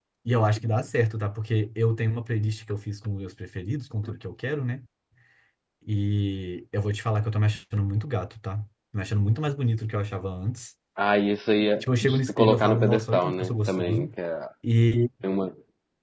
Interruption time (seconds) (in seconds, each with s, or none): 11.8 s